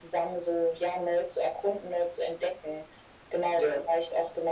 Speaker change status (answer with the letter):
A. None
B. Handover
A